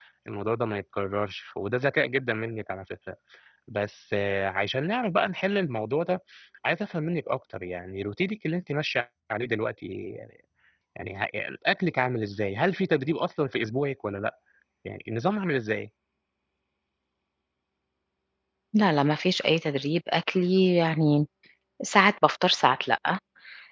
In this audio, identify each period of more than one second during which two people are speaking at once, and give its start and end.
none

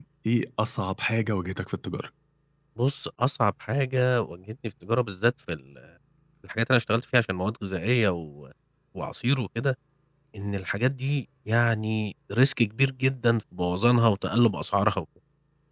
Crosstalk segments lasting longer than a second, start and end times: none

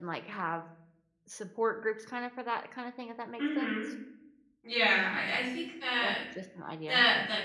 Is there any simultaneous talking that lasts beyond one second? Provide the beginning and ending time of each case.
none

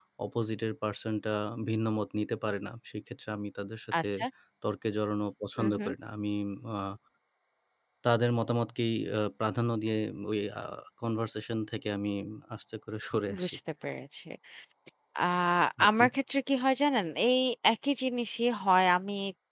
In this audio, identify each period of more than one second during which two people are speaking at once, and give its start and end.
none

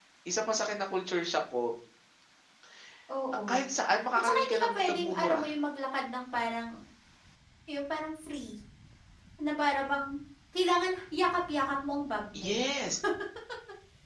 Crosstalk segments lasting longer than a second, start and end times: 4.2-5.5

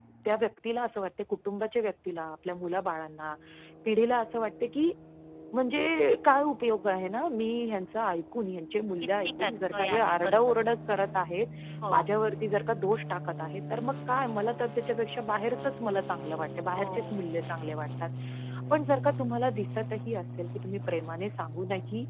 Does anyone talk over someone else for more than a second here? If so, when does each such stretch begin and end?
9.2-10.7

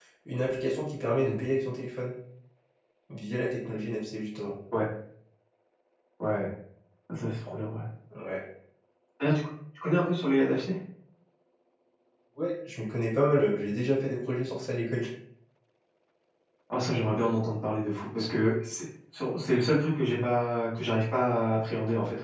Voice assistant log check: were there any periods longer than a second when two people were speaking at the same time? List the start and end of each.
none

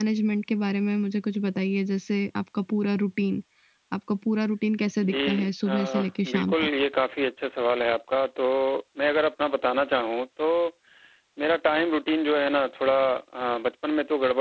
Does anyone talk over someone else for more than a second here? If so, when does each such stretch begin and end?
5.1-6.5

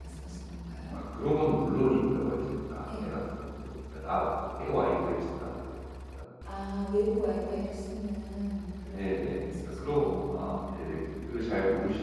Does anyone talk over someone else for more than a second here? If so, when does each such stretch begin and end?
8.9-10.3

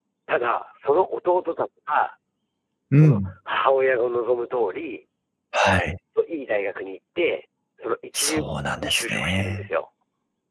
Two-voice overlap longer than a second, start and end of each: 8.1-9.7

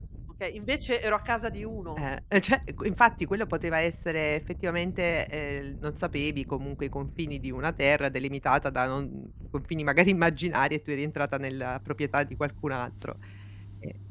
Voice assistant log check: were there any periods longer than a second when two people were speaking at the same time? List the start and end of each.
none

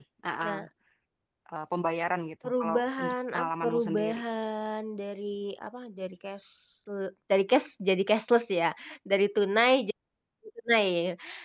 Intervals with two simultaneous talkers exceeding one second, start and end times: 2.4-4.2

